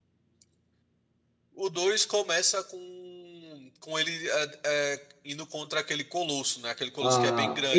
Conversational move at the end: taking over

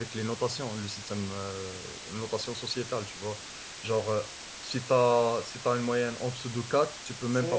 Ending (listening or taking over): taking over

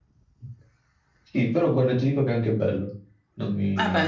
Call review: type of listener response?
taking over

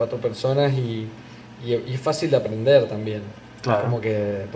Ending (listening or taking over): listening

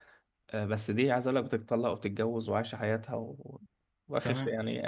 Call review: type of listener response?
listening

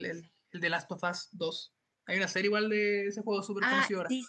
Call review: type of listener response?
taking over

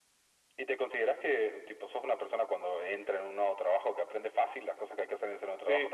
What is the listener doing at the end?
taking over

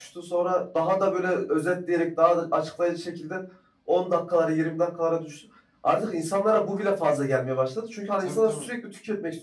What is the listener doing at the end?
listening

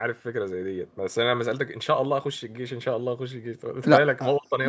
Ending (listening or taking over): taking over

